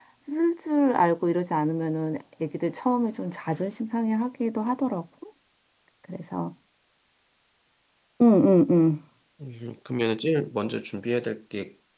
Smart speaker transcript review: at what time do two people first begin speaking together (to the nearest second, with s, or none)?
none